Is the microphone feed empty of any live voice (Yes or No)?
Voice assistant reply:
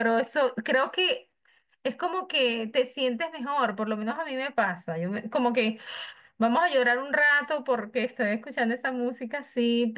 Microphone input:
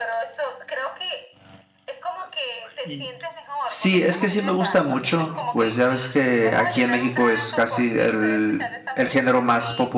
No